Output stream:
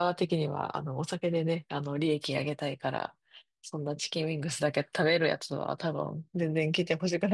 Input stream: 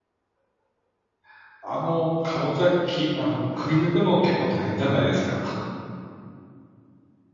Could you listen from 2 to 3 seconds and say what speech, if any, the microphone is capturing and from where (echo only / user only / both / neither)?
user only